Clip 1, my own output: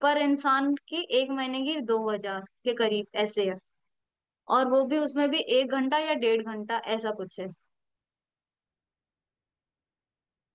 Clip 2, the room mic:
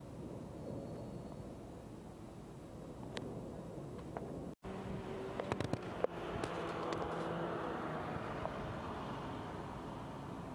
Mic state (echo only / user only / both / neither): neither